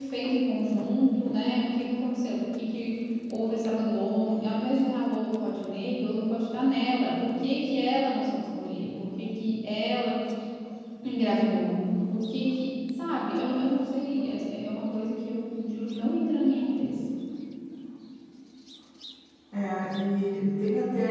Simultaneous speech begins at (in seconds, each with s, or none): none